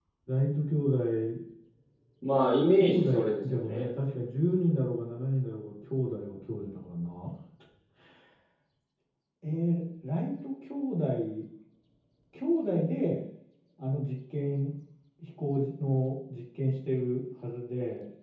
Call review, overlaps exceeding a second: present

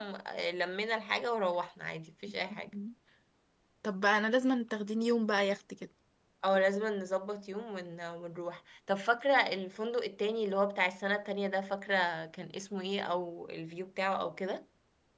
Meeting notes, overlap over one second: none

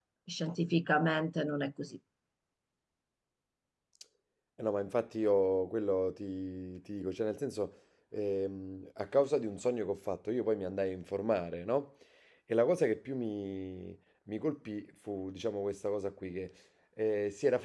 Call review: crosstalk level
none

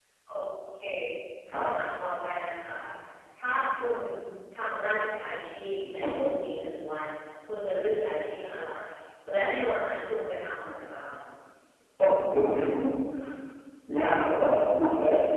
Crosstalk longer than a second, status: none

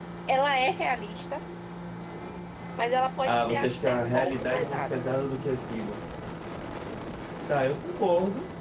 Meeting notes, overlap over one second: present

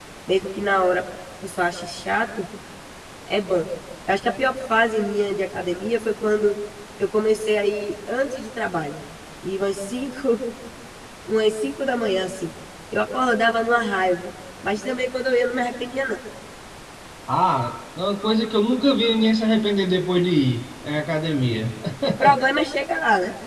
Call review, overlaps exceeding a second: none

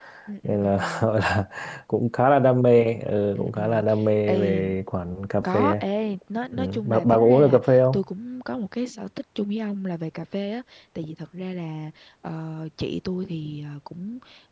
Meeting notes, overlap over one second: present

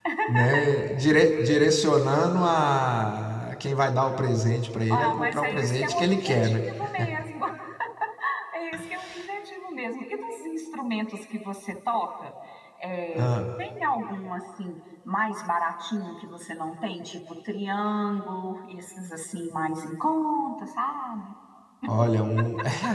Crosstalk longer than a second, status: present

